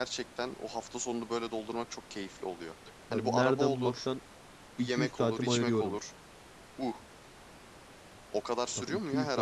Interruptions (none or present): present